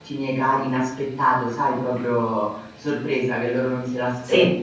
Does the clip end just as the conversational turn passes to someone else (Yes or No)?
No